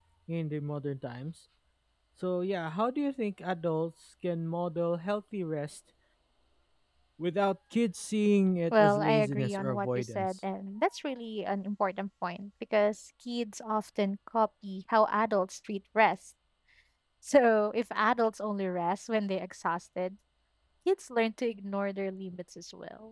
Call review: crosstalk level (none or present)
present